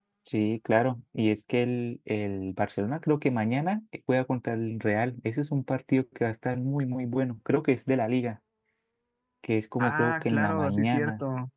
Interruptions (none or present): present